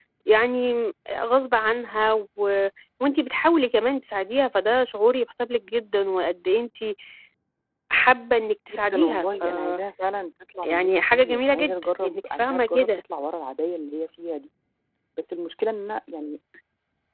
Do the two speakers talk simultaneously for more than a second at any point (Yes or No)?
Yes